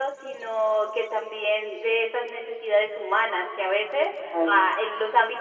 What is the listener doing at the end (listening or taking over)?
listening